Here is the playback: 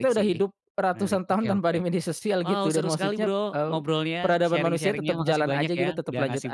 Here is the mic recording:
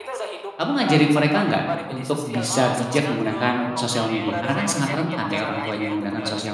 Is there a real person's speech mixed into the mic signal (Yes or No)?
Yes